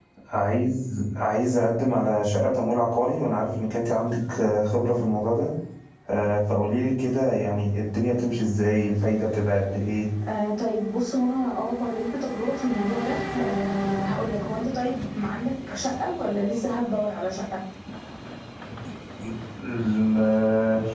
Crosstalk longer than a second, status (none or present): none